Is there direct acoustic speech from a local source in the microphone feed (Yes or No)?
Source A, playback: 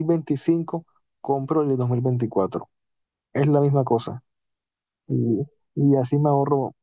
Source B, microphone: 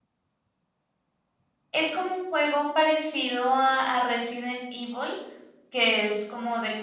Yes